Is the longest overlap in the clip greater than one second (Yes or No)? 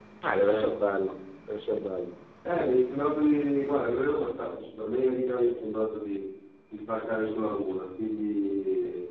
No